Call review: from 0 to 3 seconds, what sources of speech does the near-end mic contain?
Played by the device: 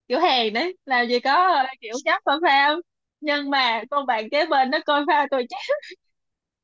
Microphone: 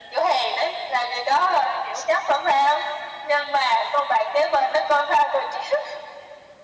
echo only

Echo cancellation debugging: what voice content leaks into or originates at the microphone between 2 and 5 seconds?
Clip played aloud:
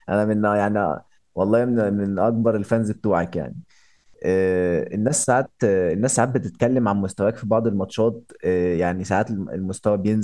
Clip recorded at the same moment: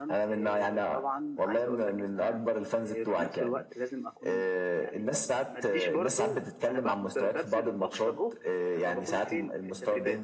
both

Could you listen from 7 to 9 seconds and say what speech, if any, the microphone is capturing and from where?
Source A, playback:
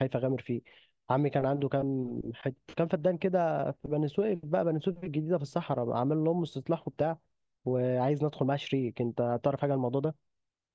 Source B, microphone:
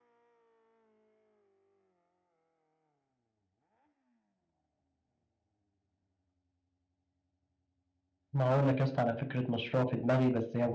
user only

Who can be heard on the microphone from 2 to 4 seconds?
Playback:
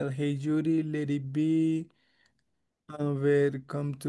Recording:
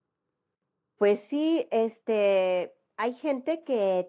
user only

